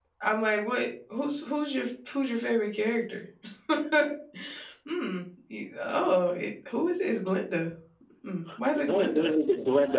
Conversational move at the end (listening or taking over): taking over